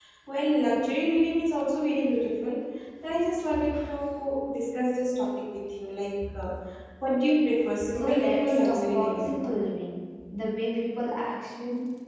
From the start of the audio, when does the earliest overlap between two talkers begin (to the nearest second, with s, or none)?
8 s